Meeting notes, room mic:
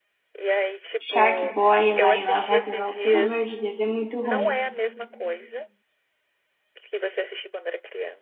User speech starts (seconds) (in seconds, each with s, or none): 1.0 s